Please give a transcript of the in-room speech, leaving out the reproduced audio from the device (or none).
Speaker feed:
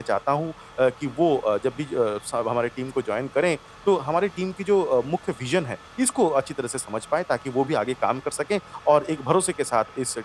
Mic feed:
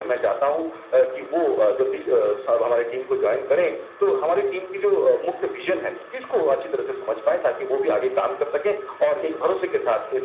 जी।